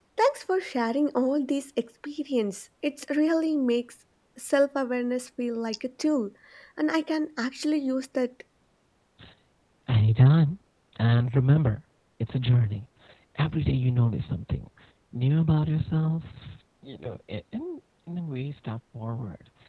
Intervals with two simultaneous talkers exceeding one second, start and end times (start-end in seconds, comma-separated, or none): none